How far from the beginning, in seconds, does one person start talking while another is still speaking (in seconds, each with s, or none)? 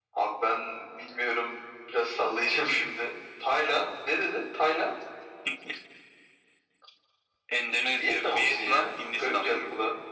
8.0 s